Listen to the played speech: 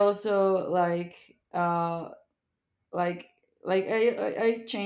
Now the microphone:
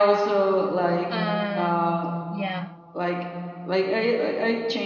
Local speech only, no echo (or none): and yeah.